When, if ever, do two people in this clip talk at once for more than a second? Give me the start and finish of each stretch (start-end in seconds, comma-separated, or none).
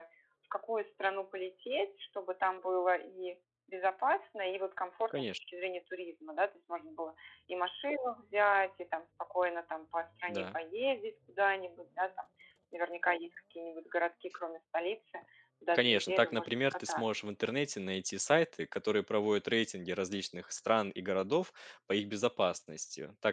15.7-17.2